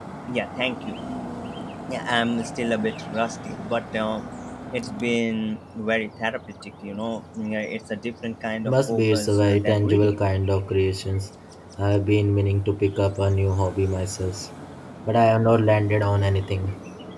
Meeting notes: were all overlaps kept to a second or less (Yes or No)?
No